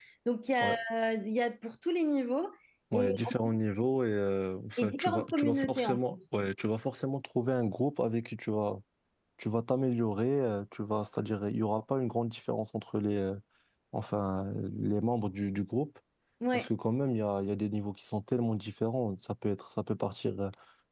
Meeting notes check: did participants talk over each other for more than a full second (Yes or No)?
Yes